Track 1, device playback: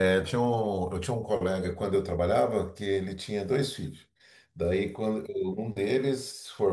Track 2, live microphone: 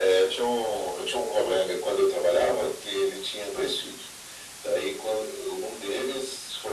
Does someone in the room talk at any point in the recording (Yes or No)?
No